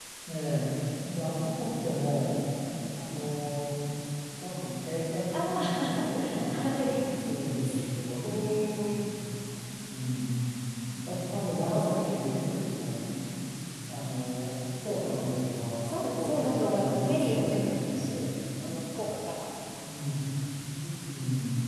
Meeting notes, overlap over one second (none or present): present